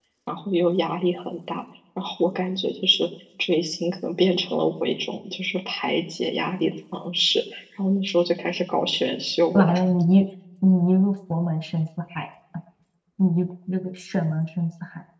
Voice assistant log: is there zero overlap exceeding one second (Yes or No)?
Yes